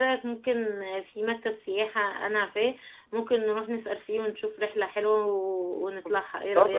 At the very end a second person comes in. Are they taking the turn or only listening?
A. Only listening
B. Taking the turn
B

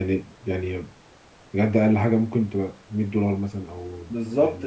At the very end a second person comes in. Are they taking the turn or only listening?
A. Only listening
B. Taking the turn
B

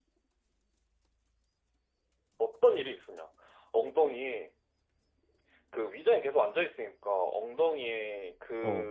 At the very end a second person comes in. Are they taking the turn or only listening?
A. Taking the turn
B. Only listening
B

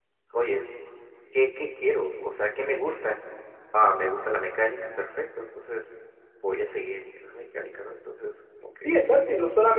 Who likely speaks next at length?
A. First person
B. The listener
B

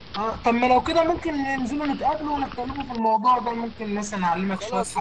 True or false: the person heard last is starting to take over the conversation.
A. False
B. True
B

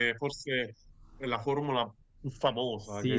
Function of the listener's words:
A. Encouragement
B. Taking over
B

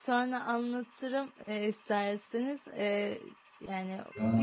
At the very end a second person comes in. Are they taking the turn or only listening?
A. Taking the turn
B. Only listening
A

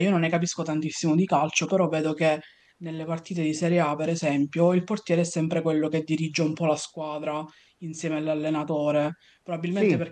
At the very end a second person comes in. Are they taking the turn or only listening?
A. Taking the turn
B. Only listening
B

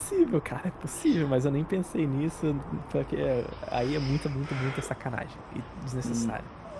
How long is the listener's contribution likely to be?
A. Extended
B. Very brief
A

